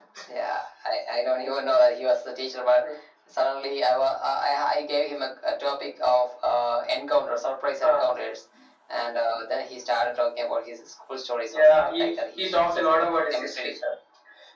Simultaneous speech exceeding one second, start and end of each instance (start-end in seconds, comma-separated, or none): 11.5-12.9